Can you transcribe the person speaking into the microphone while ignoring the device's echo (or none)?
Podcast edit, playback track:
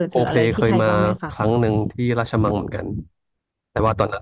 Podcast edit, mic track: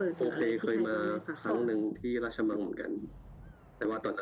ค่ะ